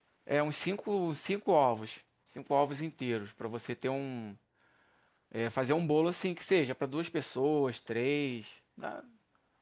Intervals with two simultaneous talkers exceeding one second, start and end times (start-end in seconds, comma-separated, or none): none